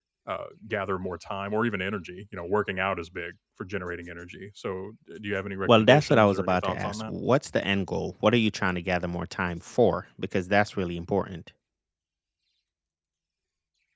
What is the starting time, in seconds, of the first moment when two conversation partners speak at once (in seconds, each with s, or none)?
5.7 s